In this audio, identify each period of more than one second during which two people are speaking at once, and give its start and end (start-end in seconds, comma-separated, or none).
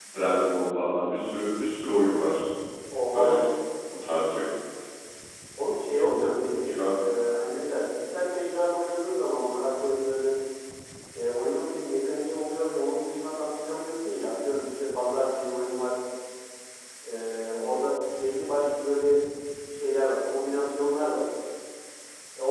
none